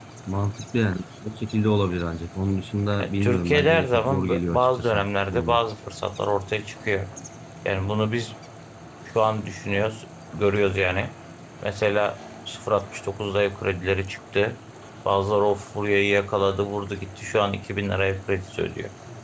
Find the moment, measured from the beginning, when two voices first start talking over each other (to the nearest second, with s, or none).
3 s